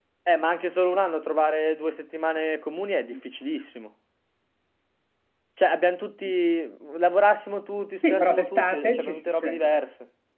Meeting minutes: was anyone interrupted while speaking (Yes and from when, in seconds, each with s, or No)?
Yes, from 8.0 s